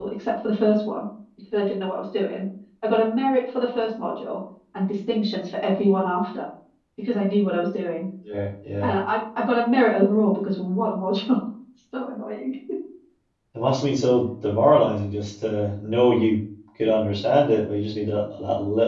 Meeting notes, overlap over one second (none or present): none